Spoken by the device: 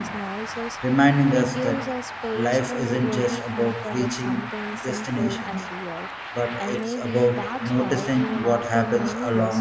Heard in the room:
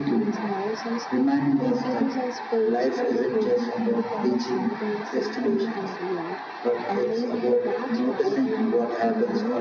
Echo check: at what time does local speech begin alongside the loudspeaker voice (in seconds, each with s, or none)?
none